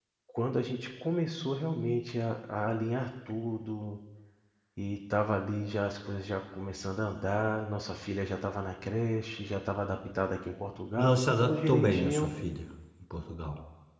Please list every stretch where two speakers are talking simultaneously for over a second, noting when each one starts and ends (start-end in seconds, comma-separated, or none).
11.0-12.3